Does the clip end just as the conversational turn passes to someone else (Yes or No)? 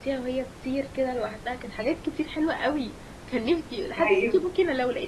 No